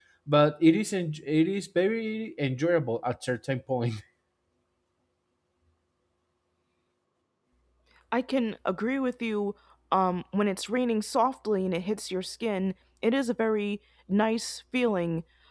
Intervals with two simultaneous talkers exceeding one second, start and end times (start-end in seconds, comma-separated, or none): none